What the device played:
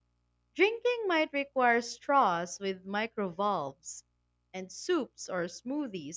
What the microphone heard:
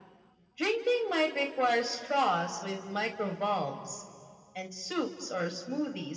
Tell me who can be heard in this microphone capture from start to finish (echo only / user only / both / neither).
echo only